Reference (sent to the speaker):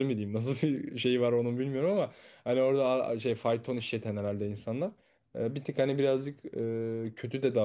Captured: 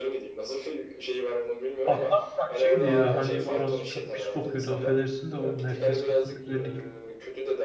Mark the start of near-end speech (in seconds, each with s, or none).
1.9 s